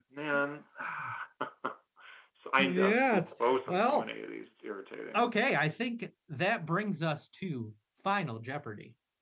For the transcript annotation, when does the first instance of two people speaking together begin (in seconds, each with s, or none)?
2.6 s